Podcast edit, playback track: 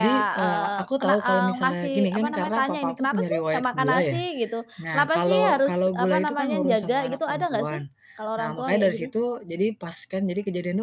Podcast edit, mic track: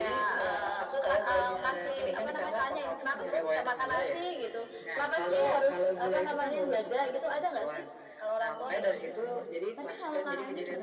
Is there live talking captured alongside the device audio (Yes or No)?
Yes